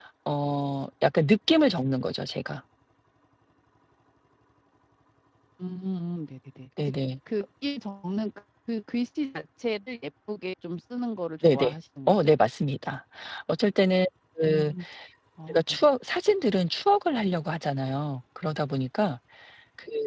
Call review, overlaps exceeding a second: none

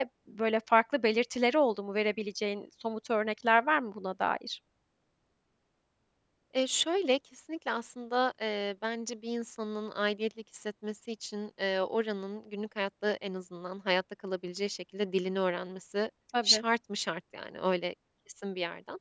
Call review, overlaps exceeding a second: none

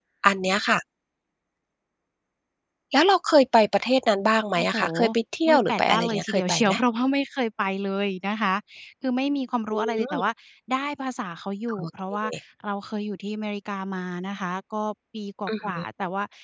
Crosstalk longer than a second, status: present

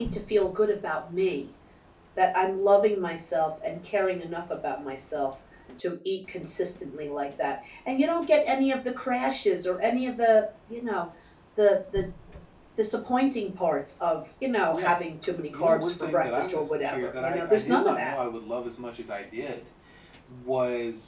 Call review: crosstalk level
present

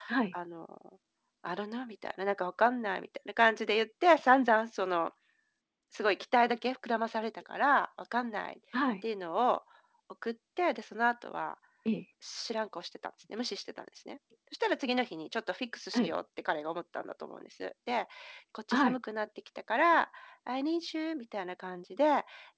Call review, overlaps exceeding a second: none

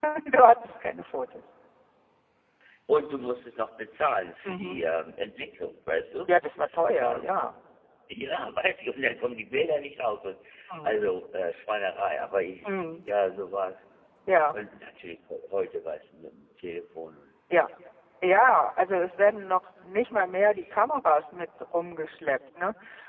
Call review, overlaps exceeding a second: none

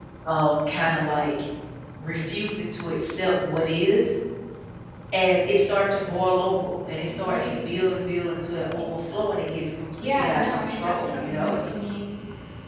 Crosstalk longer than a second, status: present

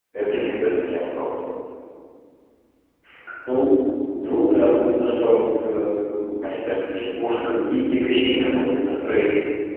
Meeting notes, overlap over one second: none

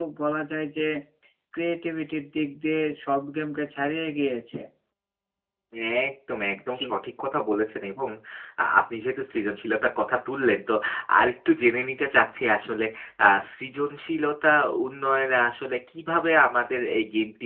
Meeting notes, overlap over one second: none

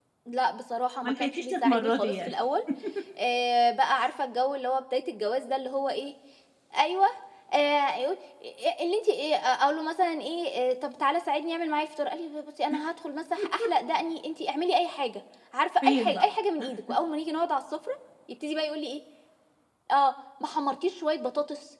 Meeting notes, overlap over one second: present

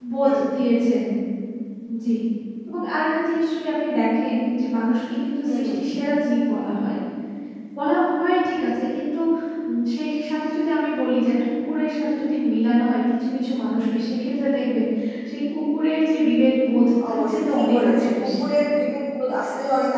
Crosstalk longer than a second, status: present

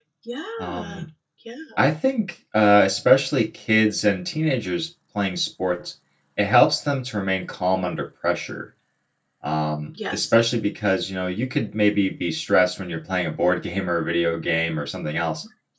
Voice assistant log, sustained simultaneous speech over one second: none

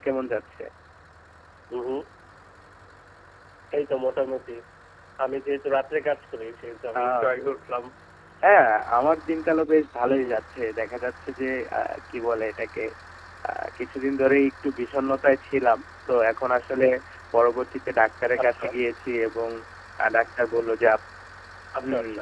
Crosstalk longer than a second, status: none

